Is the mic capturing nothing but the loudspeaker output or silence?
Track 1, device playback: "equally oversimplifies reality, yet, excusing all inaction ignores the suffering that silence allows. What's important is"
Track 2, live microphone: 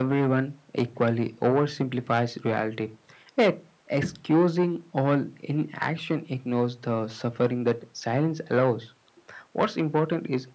Yes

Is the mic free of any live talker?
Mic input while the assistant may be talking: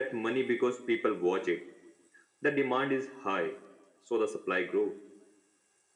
Yes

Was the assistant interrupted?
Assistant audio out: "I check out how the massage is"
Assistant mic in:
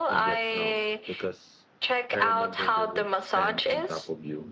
Yes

